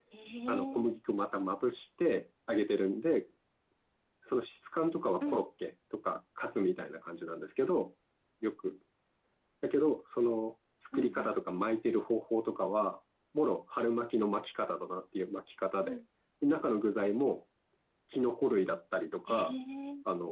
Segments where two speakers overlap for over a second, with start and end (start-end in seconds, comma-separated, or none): none